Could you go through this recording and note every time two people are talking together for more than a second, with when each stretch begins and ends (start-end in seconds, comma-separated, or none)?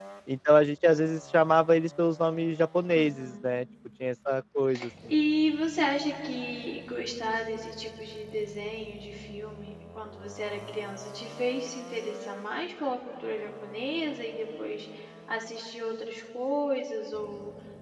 none